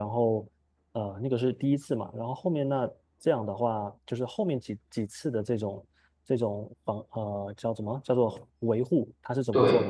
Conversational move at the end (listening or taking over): listening